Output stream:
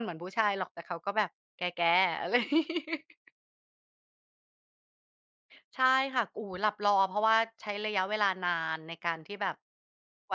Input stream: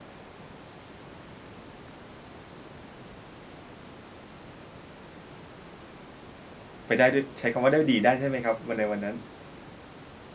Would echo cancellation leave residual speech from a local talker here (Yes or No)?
Yes